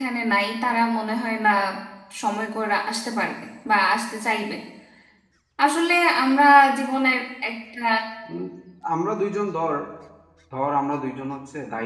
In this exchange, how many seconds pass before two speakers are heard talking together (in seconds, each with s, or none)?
none